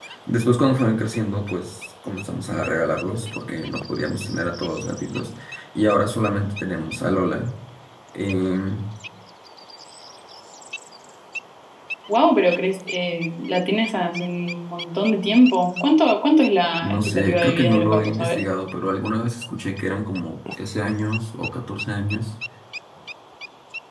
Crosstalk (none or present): present